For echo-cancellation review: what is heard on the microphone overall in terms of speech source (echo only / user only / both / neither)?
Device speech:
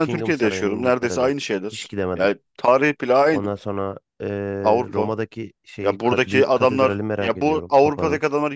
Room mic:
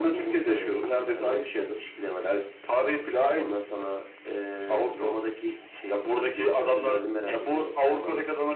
echo only